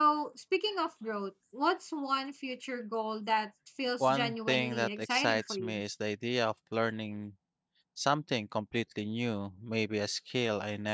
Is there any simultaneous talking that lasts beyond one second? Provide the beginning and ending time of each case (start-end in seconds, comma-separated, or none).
4.0-5.8